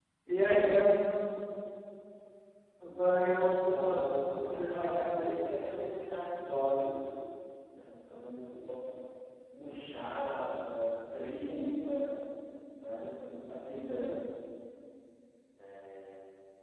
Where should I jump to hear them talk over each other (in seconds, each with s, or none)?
3.6 s